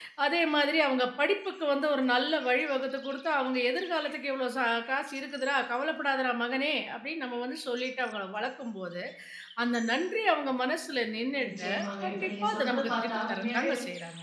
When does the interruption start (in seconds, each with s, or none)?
11.4 s